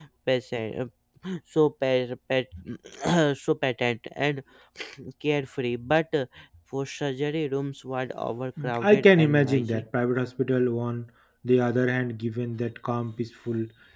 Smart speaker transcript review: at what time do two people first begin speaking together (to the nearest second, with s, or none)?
9 s